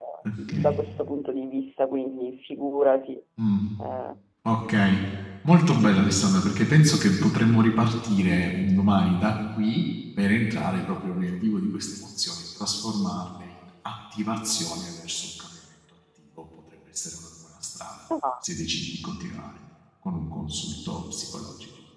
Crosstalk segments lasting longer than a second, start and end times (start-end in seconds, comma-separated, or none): none